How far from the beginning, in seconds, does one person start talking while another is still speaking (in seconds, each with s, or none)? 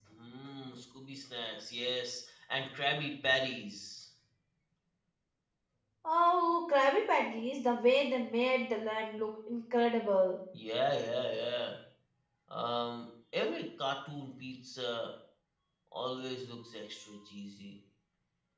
none